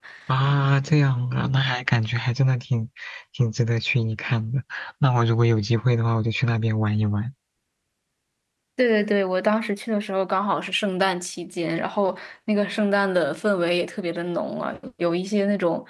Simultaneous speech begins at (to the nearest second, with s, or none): none